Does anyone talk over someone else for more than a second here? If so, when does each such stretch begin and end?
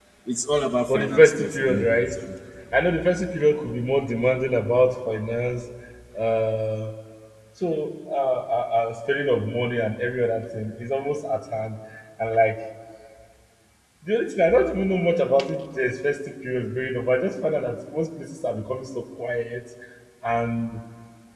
0.9-2.1

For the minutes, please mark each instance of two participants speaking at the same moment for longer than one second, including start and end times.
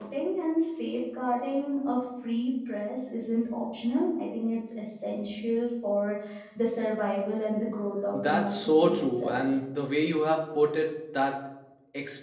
8.1-9.4

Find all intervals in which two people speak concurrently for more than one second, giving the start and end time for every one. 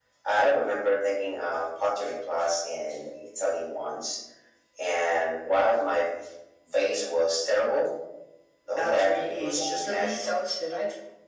8.8-10.4

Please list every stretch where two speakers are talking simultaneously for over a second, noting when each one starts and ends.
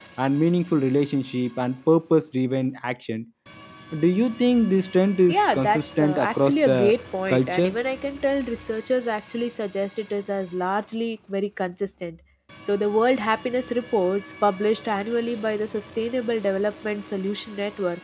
5.3-6.8

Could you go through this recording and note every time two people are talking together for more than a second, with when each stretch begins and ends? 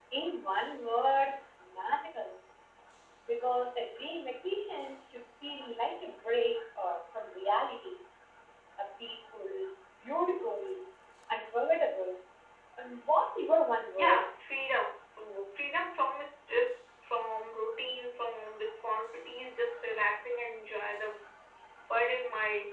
none

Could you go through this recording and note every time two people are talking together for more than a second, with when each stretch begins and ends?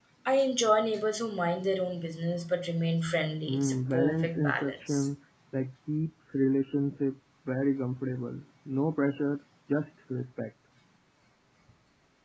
3.5-5.1

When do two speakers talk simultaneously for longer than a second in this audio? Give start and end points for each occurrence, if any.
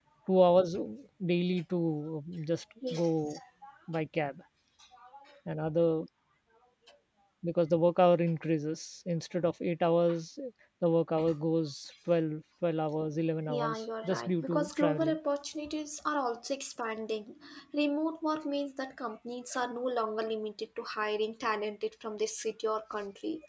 13.5-15.2

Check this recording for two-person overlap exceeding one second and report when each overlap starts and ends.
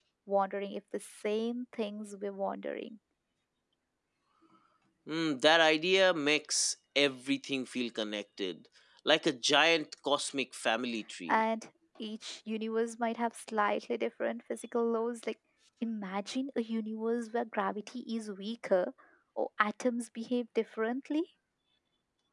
none

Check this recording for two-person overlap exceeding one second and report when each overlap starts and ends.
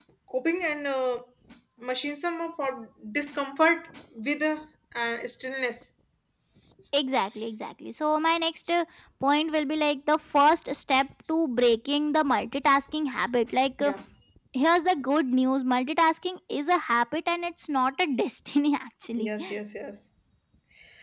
none

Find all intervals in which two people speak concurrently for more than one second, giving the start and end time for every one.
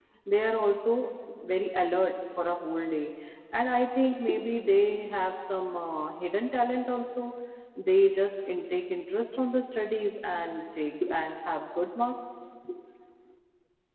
none

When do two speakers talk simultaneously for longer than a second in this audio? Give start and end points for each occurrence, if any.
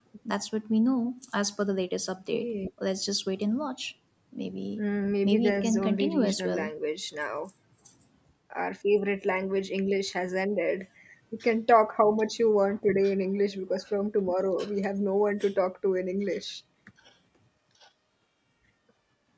5.2-6.7

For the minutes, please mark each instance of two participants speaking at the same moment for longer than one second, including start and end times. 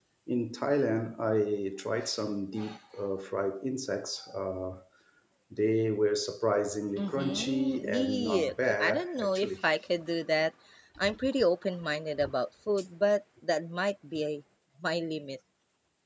7.0-9.5

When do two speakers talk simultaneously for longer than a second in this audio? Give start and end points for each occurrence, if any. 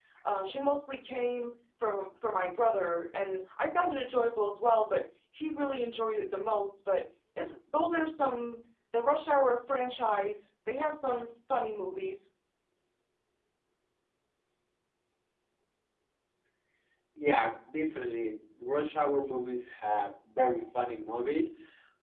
none

